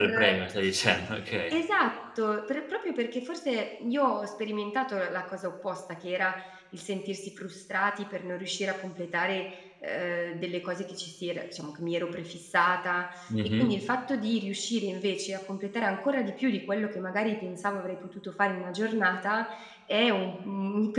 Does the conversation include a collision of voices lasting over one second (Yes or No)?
No